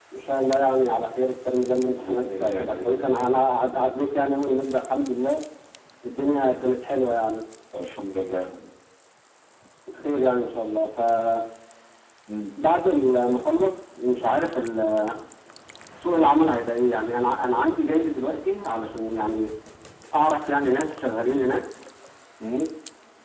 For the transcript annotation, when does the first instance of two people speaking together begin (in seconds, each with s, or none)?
2.0 s